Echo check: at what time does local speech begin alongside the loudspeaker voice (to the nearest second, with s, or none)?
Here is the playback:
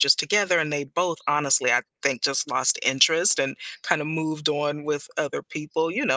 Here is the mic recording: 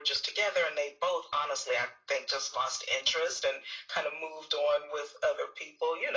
none